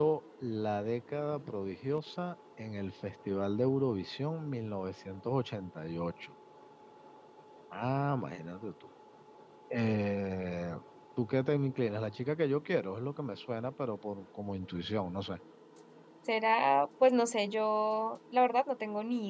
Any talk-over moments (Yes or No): No